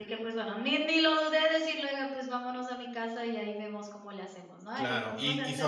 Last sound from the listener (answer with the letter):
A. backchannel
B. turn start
B